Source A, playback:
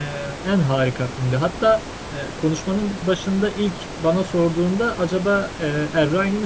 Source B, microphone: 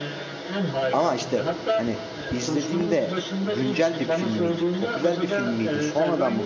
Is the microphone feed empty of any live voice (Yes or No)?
No